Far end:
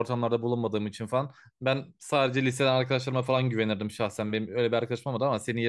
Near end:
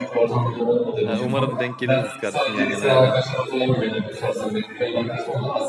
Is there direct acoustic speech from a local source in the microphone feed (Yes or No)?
Yes